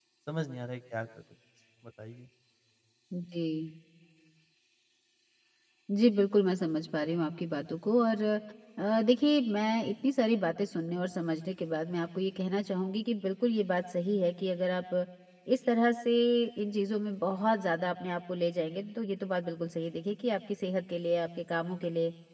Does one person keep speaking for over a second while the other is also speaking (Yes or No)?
No